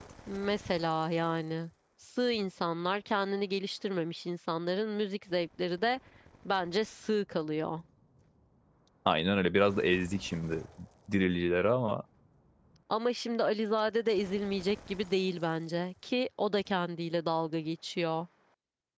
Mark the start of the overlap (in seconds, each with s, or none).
none